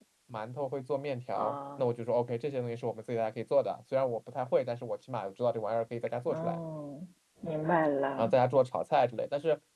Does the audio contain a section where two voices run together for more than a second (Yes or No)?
No